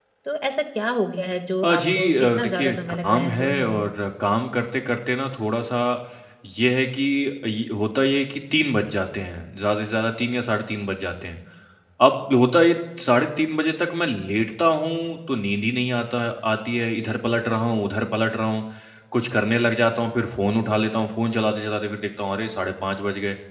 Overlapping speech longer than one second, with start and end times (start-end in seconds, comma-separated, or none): 1.6-3.8